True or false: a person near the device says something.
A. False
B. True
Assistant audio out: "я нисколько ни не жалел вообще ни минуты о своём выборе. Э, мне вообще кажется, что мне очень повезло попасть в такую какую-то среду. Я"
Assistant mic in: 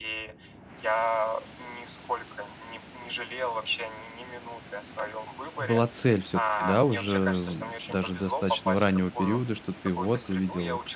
B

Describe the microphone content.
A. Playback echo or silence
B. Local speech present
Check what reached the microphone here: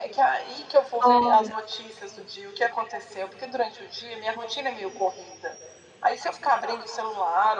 B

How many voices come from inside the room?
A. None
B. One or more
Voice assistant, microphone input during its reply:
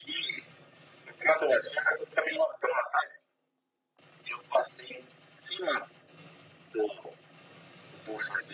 A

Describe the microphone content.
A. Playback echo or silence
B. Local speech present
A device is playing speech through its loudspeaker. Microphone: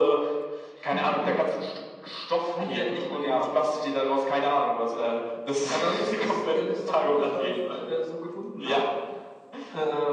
A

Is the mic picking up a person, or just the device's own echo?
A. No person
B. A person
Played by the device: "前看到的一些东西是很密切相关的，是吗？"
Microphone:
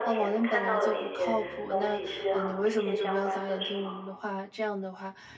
B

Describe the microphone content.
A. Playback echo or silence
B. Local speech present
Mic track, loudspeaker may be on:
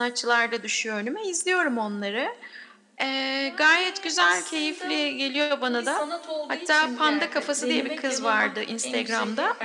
B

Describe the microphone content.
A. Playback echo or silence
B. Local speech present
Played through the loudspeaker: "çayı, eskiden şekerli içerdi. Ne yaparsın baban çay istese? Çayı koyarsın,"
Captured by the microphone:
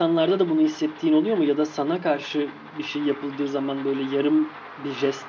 B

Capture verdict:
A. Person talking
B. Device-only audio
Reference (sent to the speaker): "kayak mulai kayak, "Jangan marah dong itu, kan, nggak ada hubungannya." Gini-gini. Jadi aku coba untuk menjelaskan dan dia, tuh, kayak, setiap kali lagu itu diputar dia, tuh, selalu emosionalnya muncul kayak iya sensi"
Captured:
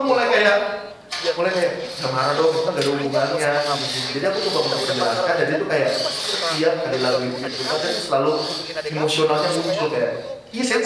A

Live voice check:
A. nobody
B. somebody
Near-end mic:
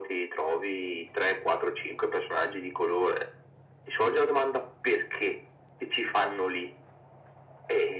A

